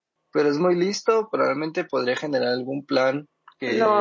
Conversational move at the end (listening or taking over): taking over